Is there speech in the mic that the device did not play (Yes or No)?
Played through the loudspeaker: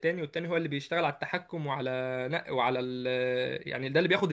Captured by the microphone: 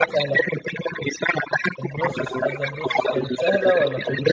Yes